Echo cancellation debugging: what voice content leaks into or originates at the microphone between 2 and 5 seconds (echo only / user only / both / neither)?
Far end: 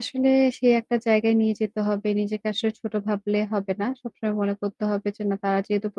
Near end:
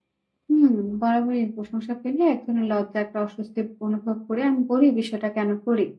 user only